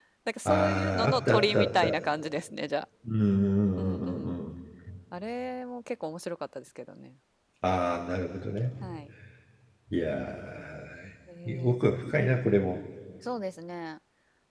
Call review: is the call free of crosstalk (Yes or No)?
No